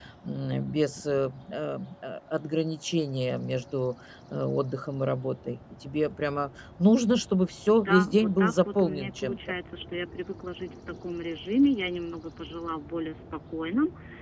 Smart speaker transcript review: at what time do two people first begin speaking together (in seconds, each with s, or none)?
7.7 s